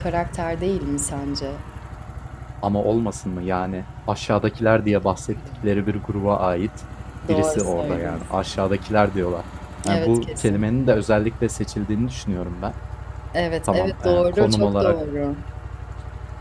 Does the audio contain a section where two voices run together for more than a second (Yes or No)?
Yes